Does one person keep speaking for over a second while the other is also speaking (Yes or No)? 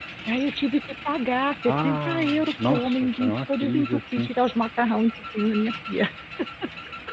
Yes